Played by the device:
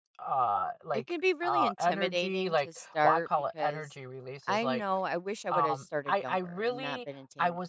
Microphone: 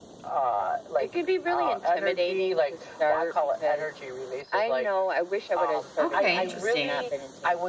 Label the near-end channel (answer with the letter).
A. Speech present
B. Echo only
A